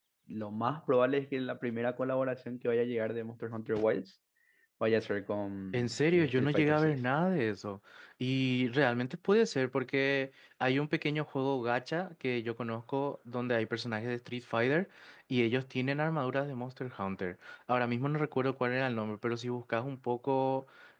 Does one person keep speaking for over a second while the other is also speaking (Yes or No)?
Yes